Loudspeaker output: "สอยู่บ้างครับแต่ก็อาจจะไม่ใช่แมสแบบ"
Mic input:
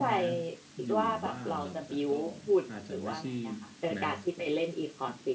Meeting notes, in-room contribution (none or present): present